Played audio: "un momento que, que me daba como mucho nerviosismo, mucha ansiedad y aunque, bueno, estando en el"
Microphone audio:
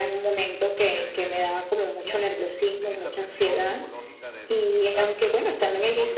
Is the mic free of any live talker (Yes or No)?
No